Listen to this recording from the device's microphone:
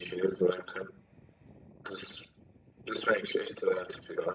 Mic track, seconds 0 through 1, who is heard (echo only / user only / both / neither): echo only